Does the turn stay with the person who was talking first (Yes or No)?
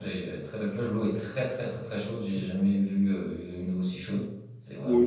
No